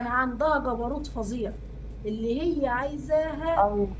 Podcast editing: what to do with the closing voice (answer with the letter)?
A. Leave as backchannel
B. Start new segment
A